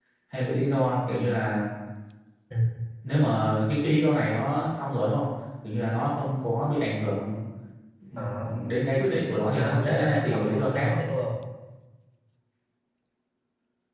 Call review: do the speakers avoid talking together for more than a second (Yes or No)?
No